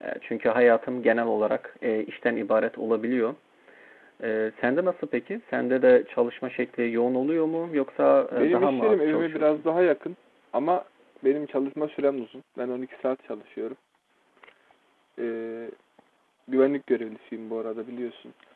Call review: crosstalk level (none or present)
present